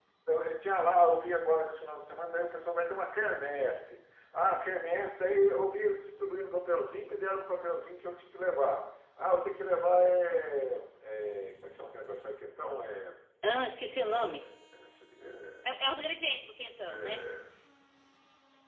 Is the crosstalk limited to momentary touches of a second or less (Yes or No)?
Yes